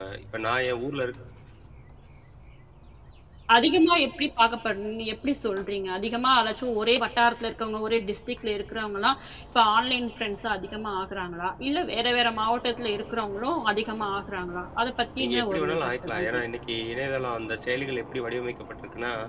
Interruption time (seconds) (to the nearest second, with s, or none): 15 s